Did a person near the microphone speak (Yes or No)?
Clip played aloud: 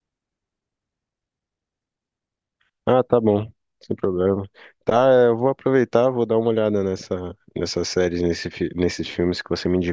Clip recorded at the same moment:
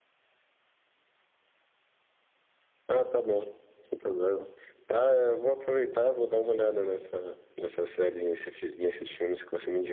No